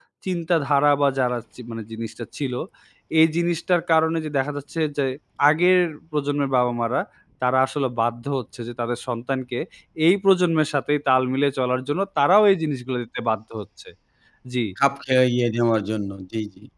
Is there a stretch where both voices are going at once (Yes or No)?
No